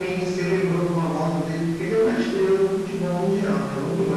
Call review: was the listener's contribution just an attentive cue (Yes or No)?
Yes